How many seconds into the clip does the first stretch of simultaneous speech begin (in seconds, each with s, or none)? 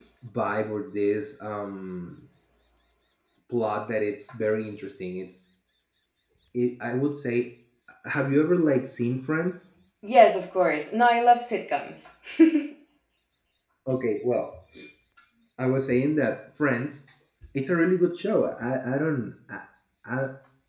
none